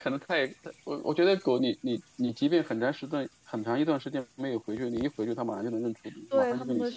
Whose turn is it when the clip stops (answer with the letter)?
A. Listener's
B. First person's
A